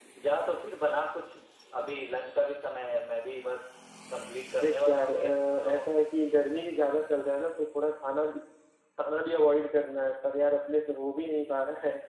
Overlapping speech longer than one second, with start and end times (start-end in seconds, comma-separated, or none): 4.6-5.8